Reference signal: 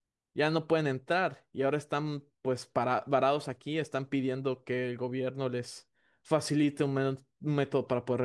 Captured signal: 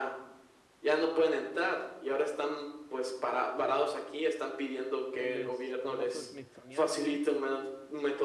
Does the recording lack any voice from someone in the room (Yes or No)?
No